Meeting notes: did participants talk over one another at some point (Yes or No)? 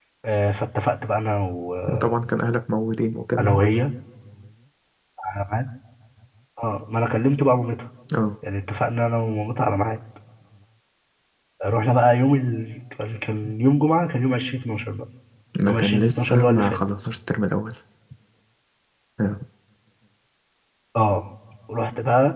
Yes